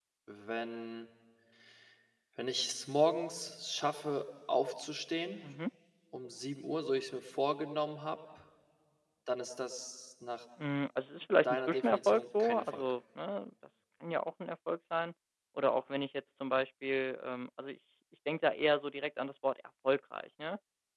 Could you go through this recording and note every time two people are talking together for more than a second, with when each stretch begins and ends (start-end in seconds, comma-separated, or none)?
11.4-12.8